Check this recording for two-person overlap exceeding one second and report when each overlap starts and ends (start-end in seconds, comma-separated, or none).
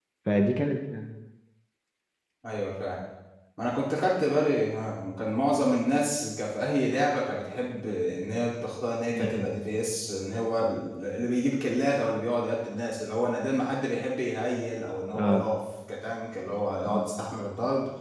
none